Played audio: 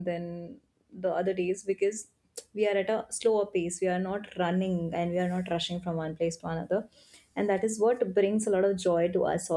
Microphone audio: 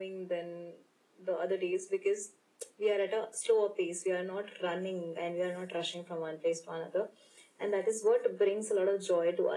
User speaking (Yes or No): No